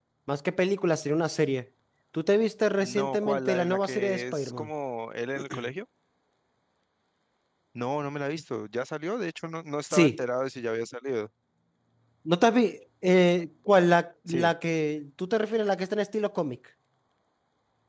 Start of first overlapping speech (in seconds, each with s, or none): 2.8 s